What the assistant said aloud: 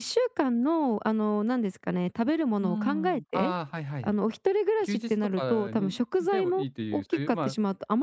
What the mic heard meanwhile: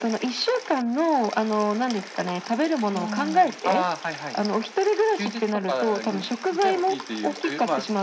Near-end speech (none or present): none